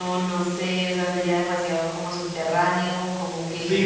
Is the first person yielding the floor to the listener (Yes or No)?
Yes